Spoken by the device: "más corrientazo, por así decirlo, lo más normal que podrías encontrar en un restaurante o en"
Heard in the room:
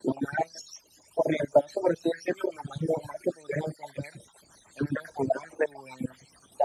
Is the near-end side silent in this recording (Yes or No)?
Yes